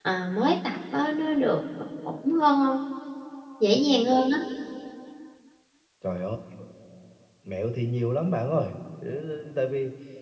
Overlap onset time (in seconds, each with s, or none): none